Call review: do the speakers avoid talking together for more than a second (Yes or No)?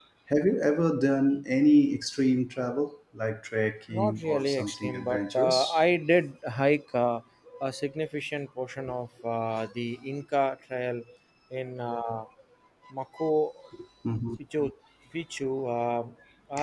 No